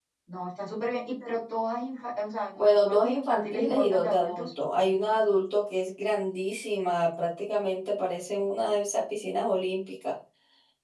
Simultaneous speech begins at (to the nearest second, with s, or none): 3 s